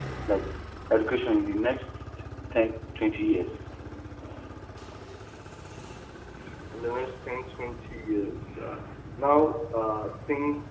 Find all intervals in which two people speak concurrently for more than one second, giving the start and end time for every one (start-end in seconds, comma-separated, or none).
none